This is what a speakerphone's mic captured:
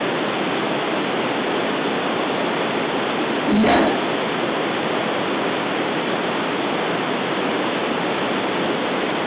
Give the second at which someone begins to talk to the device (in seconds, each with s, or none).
3.5 s